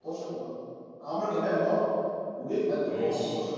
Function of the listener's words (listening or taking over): listening